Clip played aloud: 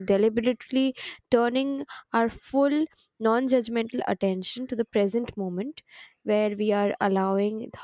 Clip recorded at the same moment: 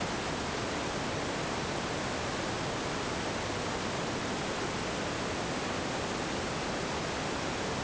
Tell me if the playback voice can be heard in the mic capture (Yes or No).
No